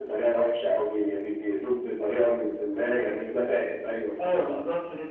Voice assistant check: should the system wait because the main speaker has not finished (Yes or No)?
No